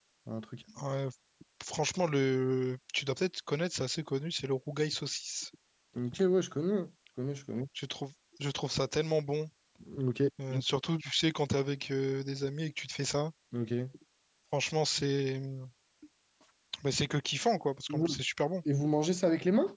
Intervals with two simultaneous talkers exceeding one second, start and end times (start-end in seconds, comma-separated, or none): none